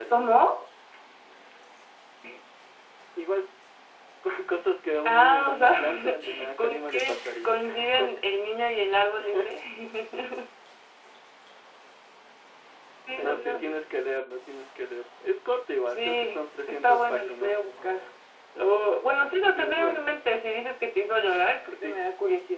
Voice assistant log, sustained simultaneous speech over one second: present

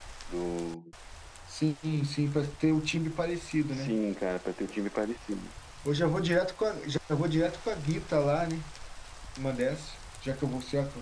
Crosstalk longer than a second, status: none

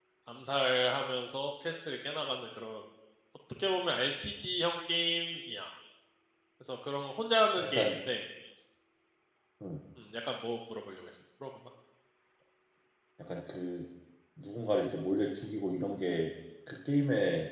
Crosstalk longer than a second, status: none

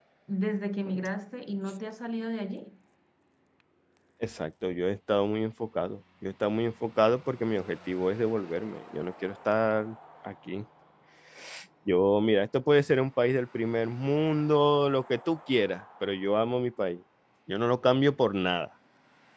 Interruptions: none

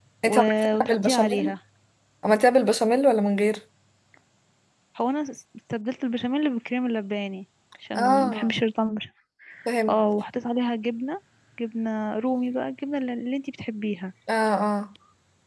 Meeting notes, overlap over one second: present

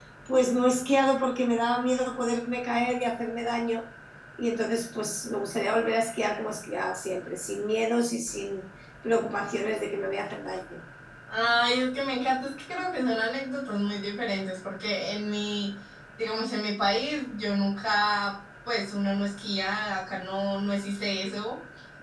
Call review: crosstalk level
none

